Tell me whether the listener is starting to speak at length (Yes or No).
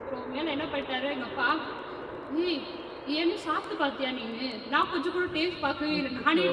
No